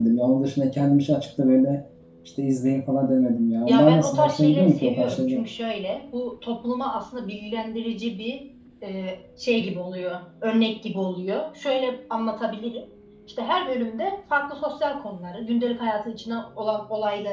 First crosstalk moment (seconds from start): 3.7 s

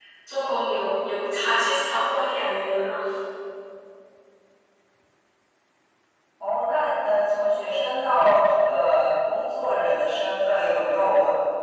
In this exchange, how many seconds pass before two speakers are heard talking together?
none

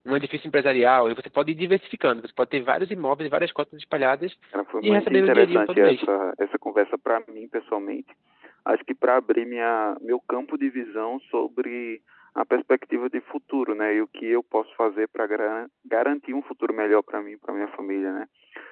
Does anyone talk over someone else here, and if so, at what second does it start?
4.8 s

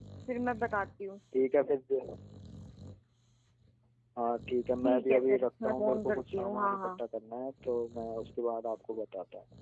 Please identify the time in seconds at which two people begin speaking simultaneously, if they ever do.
4.8 s

